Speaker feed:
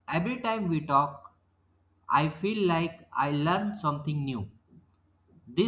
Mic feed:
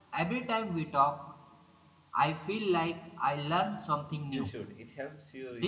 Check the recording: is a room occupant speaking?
Yes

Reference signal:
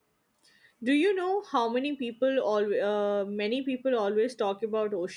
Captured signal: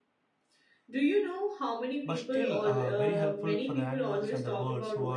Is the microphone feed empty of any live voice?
No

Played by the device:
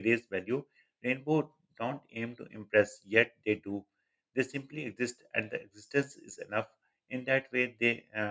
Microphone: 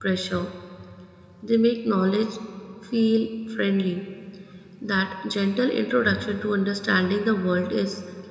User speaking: Yes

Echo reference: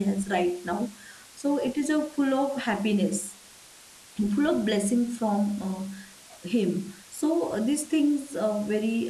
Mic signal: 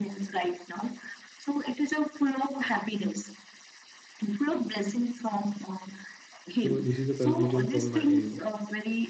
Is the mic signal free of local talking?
No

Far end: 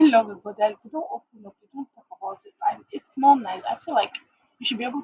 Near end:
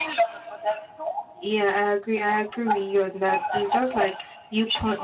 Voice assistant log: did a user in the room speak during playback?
Yes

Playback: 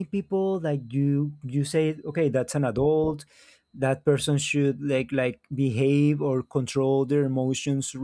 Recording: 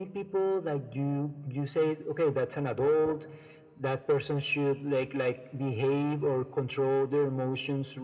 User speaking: No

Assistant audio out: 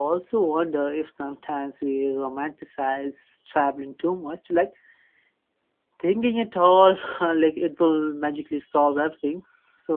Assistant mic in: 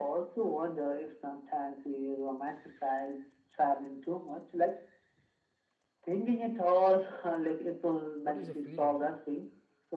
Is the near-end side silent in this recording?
No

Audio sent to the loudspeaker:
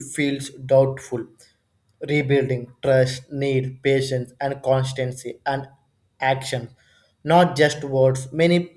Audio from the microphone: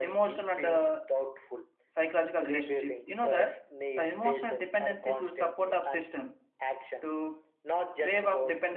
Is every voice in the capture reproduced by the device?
No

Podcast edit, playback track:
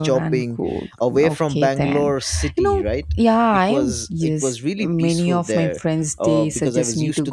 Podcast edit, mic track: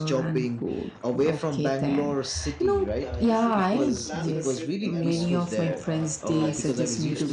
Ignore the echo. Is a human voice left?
Yes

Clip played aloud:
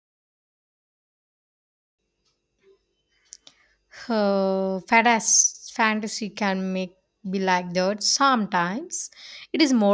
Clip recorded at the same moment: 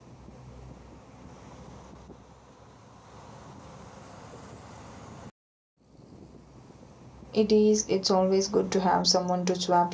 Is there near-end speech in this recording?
Yes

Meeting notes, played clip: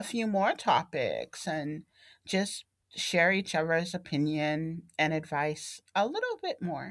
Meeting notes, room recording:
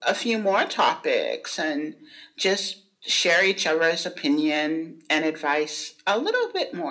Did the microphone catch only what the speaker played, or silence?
Yes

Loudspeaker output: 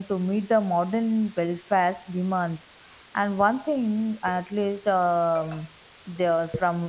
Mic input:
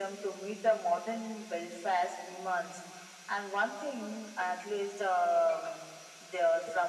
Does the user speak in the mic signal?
No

